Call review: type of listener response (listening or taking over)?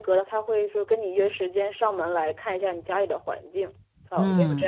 taking over